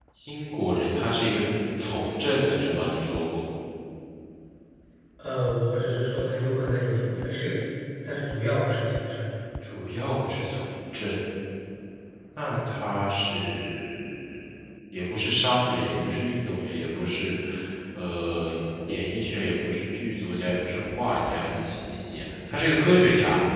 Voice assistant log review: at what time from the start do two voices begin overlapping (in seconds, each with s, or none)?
none